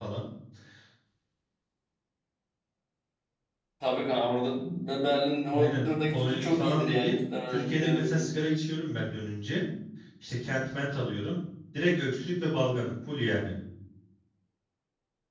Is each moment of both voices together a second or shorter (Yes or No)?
No